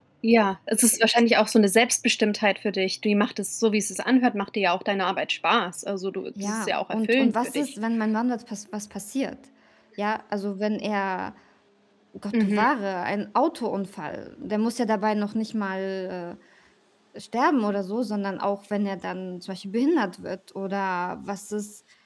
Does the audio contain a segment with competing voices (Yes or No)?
Yes